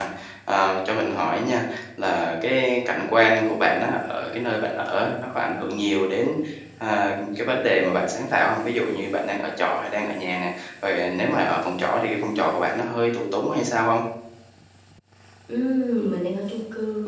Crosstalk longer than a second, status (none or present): none